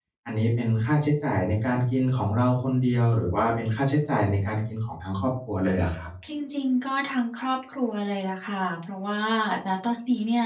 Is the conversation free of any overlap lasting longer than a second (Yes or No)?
Yes